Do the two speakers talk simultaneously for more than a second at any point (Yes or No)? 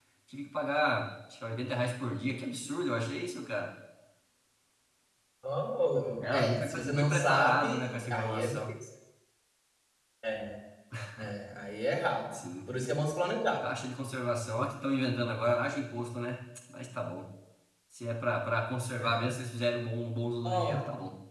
Yes